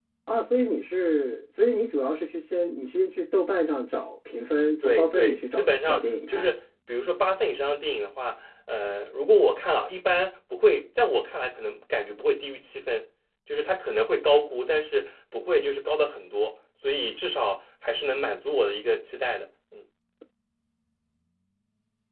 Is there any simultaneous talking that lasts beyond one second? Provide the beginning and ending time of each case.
4.8-6.5

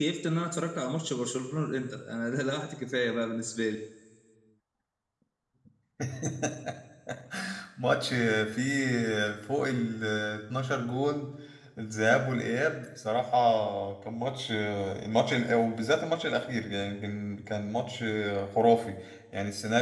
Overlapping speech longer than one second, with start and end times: none

